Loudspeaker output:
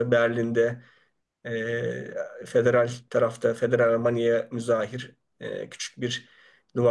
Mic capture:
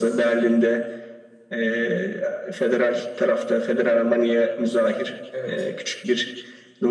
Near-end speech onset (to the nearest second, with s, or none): 5 s